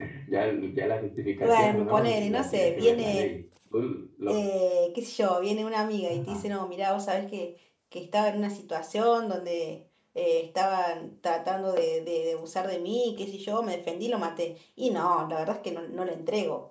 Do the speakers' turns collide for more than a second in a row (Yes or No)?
Yes